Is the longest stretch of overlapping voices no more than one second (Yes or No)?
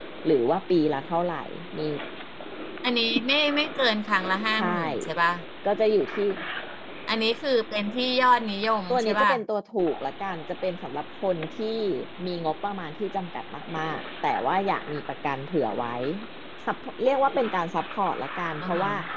Yes